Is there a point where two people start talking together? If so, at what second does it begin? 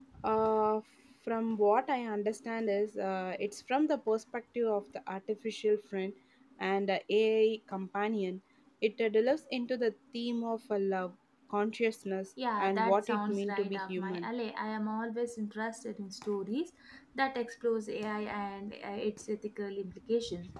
12 s

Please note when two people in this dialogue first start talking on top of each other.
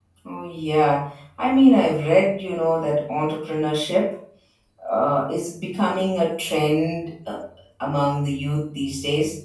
none

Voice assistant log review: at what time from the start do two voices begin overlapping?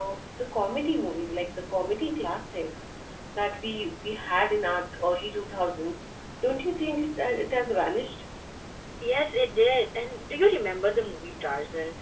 none

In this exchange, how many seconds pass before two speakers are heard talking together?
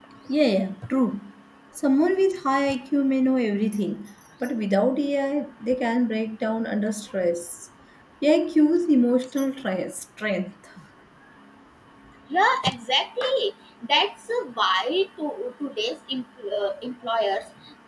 none

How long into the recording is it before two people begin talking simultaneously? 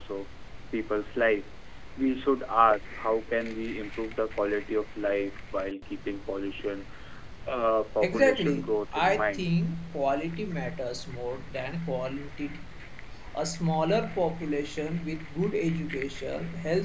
8 s

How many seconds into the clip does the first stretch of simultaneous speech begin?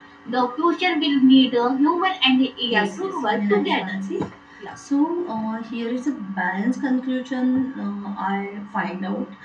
3 s

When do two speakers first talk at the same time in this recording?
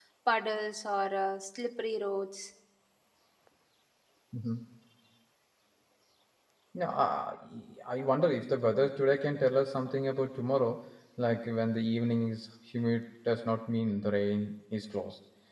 none

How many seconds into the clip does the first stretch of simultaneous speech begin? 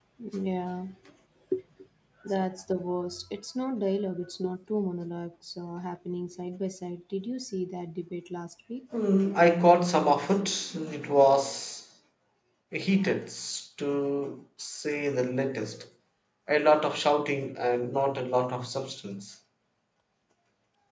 none

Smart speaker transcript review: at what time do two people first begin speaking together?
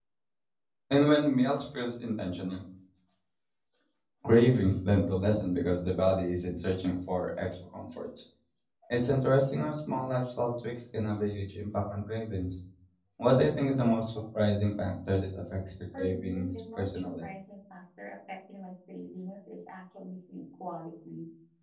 16 s

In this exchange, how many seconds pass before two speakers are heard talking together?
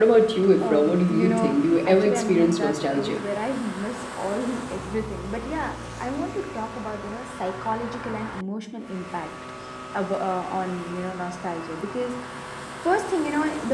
1 s

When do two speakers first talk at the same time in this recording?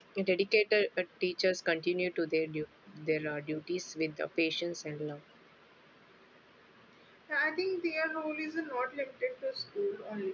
none

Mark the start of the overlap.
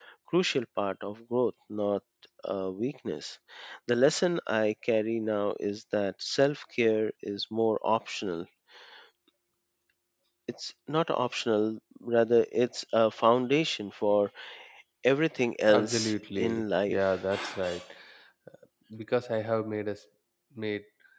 16 s

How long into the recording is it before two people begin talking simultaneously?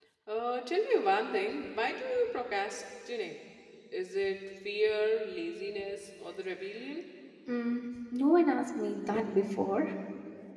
none

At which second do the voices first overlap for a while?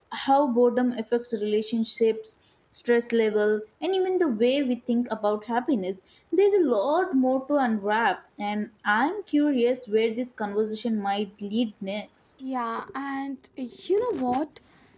none

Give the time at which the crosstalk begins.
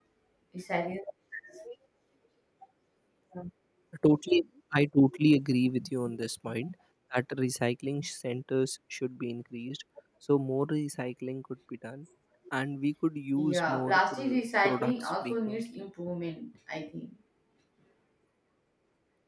13 s

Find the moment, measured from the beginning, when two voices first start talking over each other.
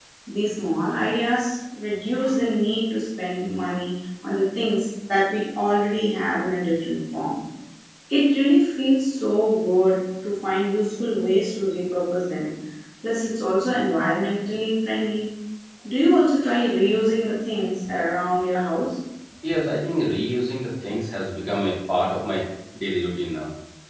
none

